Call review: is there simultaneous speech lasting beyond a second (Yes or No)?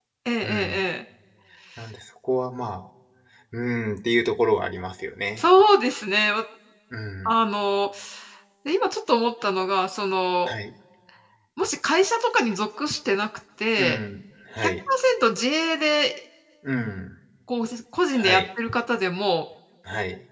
No